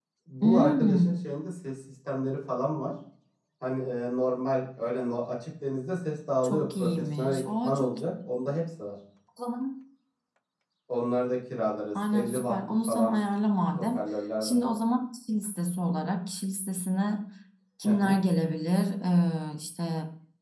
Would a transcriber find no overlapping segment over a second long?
No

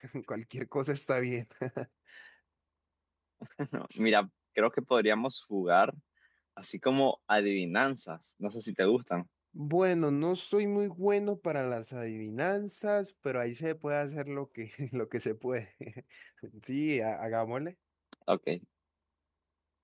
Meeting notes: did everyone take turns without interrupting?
Yes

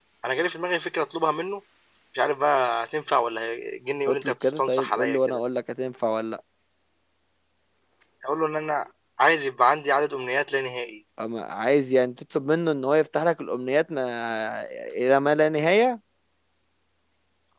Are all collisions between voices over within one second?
No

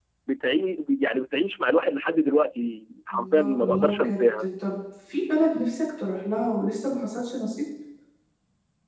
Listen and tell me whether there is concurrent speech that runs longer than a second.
Yes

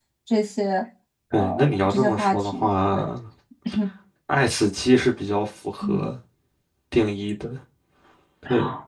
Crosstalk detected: Yes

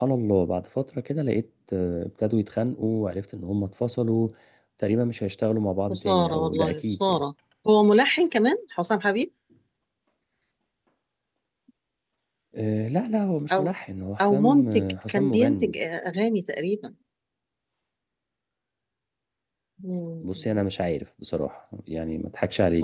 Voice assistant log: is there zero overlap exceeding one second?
No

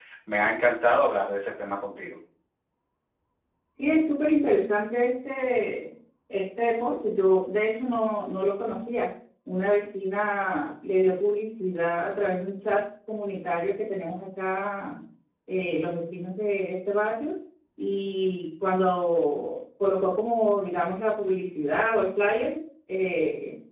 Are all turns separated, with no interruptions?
Yes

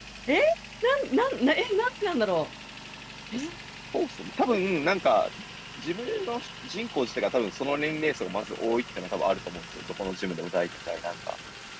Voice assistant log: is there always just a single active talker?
Yes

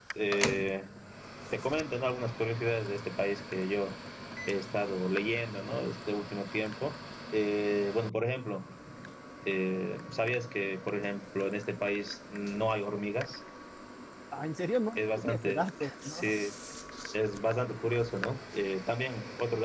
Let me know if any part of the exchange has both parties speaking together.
Yes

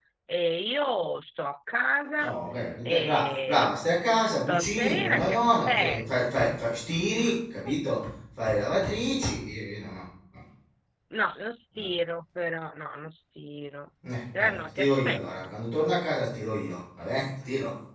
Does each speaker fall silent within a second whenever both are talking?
No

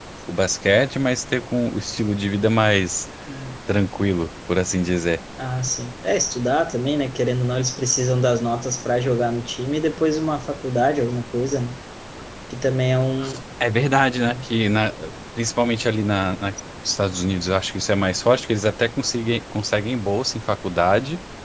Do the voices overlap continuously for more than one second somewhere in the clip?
No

